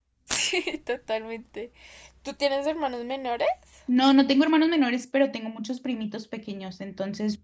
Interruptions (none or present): none